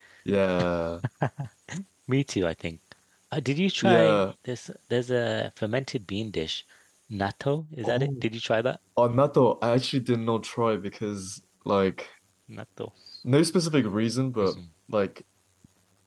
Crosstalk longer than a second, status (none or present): none